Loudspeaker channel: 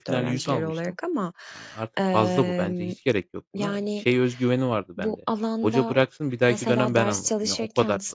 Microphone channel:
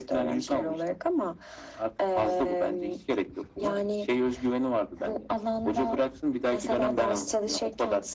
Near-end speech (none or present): none